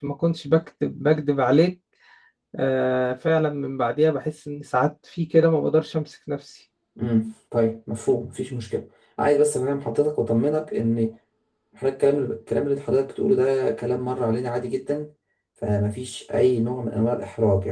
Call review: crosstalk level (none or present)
none